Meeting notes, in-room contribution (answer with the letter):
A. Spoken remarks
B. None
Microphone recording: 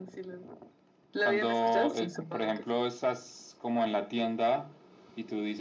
B